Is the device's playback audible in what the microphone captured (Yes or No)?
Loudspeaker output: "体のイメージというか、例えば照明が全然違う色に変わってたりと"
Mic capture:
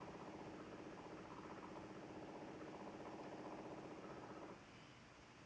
No